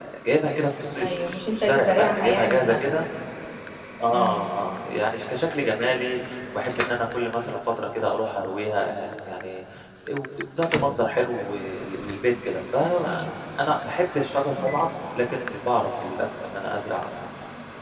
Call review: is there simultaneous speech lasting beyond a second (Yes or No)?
Yes